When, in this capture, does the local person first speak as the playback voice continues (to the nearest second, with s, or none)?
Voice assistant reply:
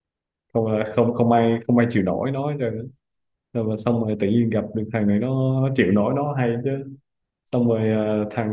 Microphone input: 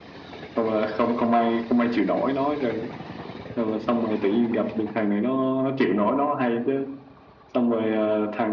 none